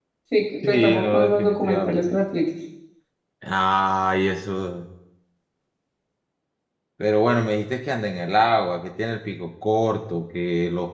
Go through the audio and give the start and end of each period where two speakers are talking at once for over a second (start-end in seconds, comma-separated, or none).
0.6-2.1